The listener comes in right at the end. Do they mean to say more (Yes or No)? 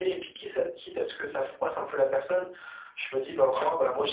No